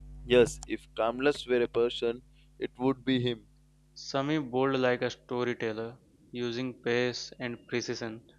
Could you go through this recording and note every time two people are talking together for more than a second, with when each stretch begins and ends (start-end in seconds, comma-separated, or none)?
none